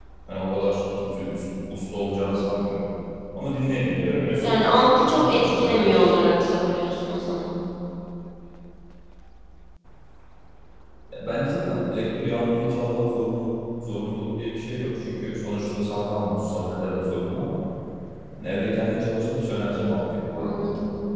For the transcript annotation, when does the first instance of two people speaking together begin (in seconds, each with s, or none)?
4.4 s